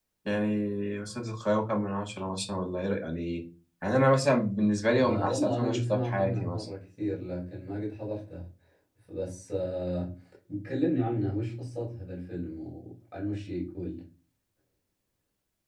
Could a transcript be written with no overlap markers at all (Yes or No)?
No